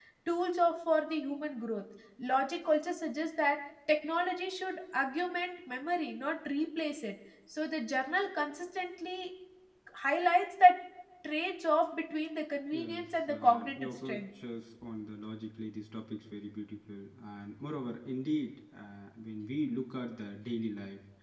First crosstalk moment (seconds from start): 12.7 s

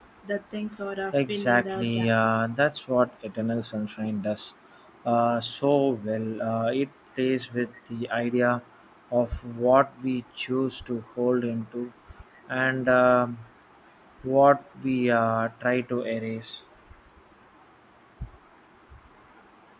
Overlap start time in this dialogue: 1.1 s

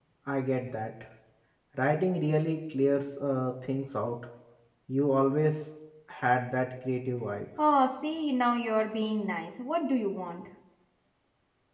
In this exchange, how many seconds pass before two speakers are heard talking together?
none

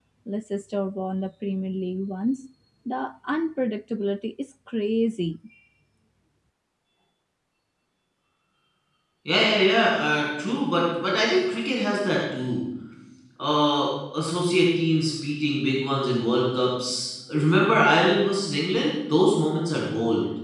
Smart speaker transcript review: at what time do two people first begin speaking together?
none

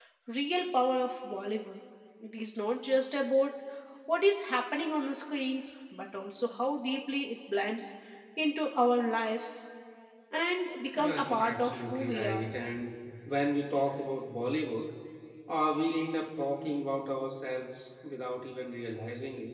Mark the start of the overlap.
10.9 s

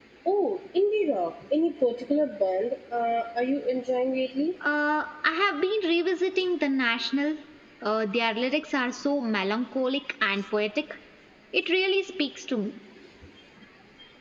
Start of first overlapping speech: none

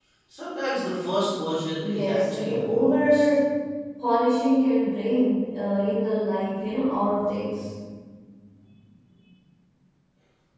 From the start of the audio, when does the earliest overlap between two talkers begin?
1.8 s

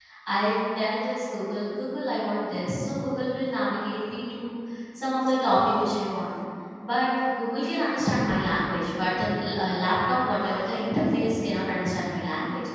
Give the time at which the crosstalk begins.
none

